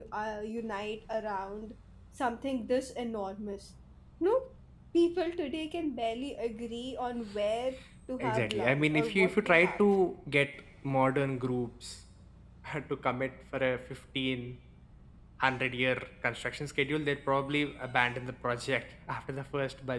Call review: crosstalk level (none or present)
present